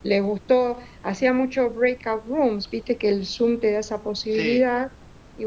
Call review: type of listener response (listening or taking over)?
listening